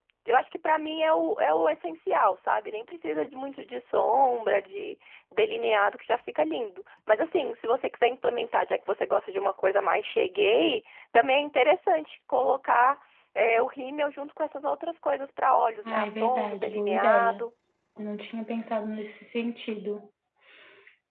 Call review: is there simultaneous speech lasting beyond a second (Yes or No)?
Yes